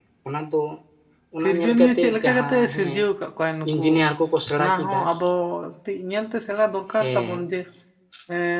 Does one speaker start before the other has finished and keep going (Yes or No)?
Yes